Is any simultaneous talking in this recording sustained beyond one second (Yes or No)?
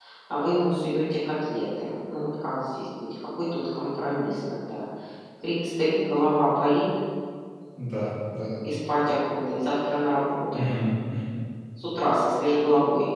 No